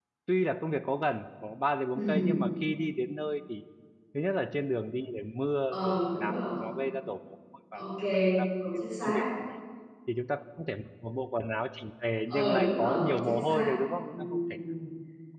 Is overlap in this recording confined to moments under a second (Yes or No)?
No